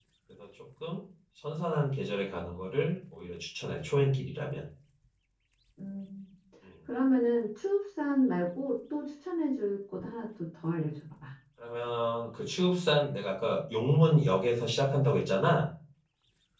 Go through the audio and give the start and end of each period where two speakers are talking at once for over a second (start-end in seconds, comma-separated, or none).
none